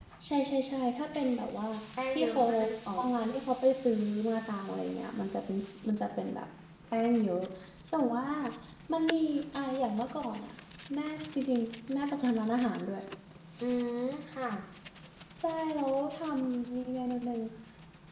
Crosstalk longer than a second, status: none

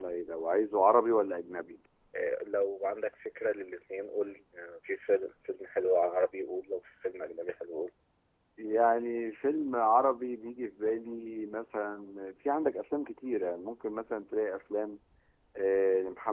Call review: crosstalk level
none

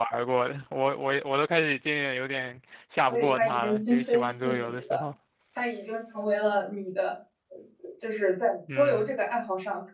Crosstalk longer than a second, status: present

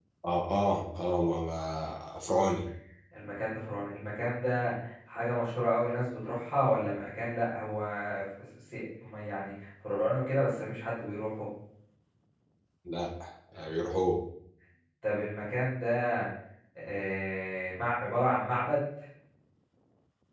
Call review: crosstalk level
none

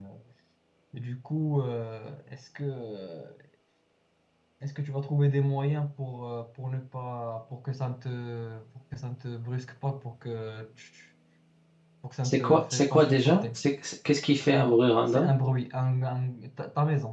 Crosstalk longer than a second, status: present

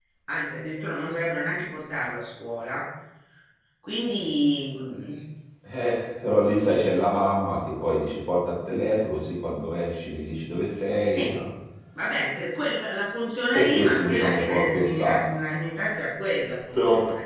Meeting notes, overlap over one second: present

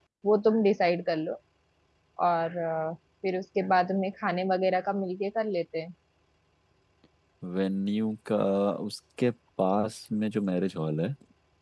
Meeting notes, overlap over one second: none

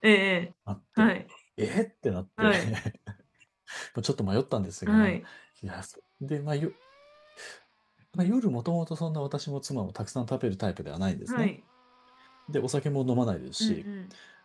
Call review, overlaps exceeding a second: none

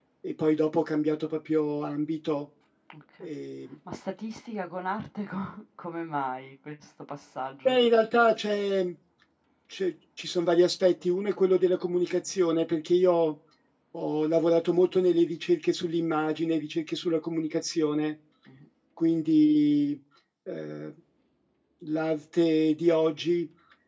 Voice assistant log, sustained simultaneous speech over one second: none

